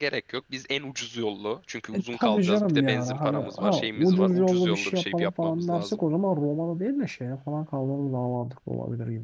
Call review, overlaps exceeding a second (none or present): present